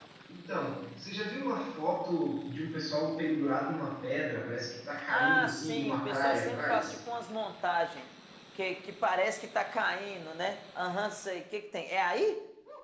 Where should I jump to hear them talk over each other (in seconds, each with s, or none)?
5.1 s